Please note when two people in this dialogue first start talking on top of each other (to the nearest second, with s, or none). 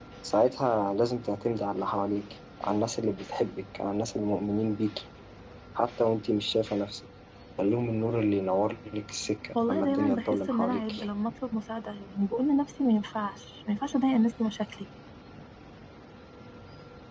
10 s